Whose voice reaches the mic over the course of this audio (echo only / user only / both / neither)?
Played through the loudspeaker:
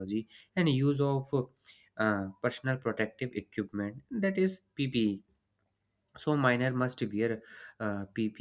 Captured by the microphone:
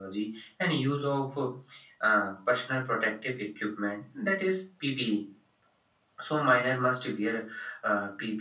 echo only